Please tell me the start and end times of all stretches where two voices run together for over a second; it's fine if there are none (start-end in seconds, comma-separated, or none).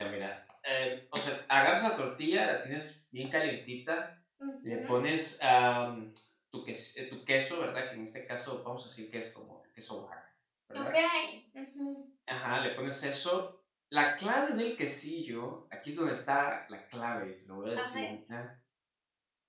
none